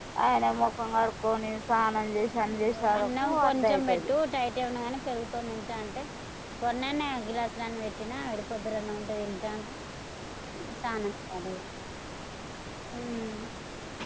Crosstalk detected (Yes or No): Yes